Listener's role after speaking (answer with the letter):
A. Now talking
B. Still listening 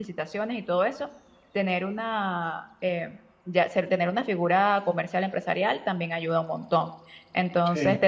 B